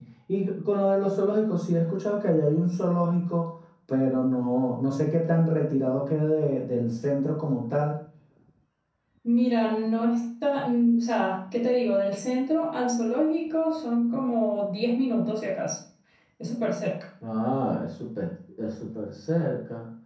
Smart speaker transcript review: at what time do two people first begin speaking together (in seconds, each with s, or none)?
none